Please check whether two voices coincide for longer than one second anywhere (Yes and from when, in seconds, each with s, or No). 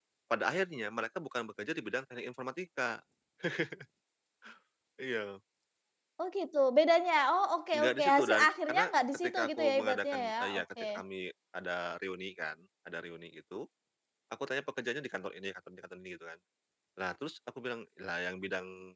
Yes, from 7.7 s